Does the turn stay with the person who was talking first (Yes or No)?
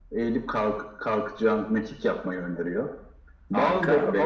No